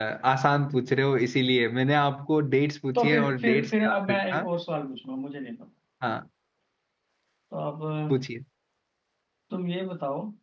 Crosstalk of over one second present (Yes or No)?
Yes